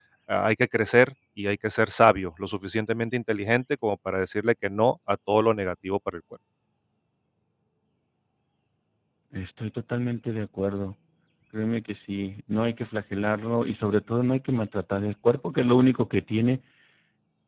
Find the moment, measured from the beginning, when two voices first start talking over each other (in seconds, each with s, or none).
none